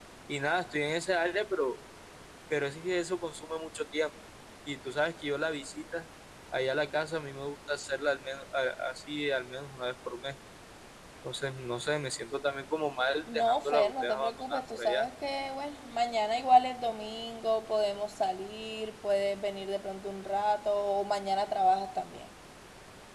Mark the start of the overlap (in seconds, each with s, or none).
13.3 s